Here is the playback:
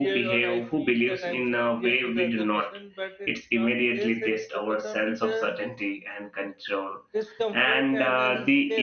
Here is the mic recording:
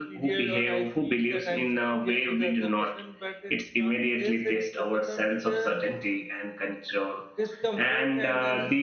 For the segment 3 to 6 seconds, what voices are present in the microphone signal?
echo only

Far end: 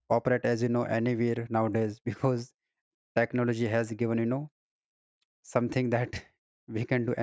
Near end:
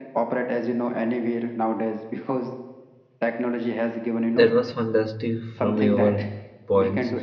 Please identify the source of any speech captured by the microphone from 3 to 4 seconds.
echo only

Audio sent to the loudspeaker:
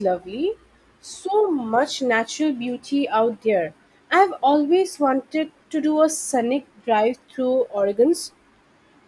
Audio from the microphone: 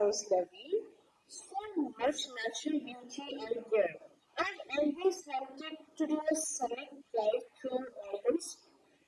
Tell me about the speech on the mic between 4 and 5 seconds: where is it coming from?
echo only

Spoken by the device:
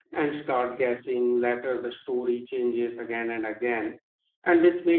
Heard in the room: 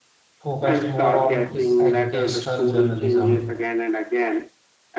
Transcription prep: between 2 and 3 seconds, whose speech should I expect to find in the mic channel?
both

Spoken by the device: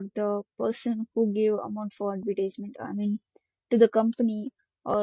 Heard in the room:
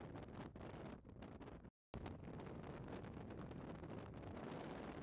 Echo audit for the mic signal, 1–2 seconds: neither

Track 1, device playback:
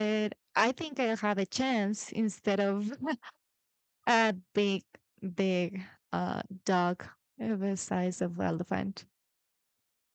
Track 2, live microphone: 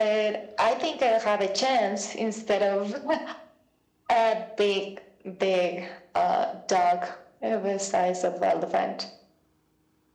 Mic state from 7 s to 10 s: echo only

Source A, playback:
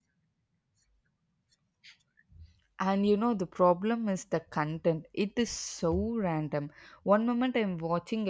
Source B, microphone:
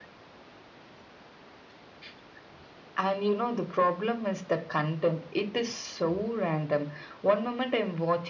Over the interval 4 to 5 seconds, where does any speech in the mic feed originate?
echo only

